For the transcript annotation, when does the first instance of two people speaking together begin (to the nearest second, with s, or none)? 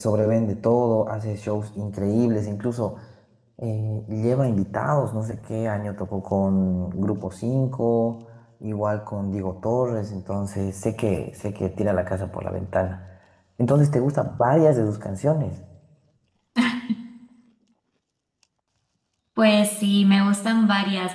none